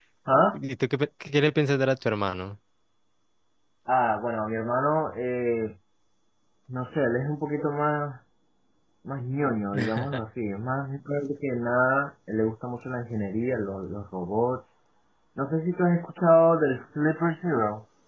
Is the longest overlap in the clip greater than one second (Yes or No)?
No